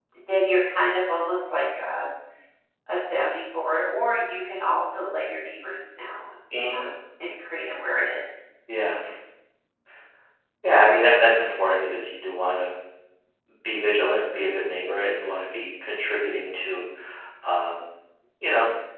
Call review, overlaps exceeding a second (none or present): none